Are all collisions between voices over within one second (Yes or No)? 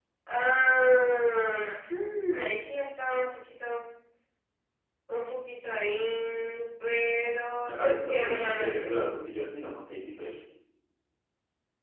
No